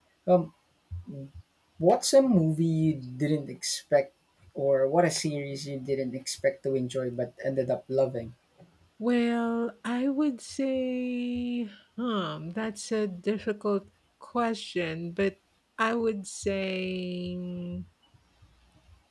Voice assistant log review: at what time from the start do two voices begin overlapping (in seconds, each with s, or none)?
none